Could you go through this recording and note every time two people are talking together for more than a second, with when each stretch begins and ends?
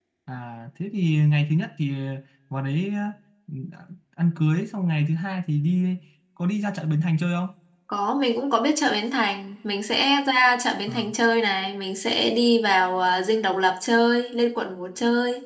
none

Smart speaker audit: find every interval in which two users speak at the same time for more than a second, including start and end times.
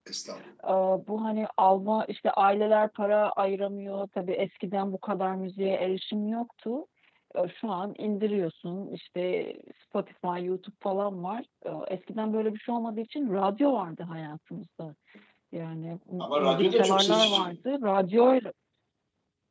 16.2-17.6

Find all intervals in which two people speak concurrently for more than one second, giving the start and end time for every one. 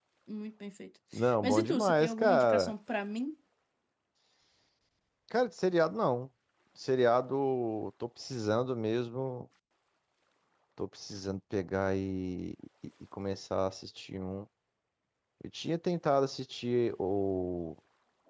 1.4-2.7

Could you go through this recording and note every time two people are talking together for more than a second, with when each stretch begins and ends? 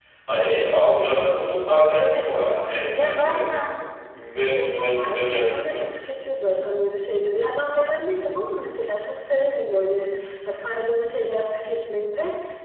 1.9-3.4, 4.4-5.8

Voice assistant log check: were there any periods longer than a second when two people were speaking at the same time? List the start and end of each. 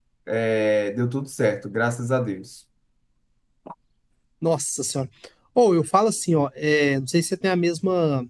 none

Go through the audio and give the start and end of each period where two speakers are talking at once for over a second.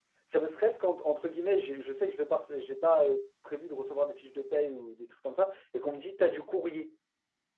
none

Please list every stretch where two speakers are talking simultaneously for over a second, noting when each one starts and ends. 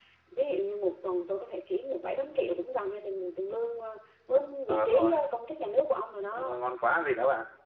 none

